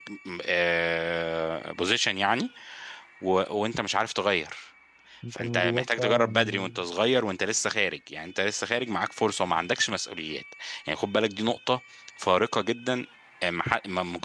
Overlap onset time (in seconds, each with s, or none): 5.3 s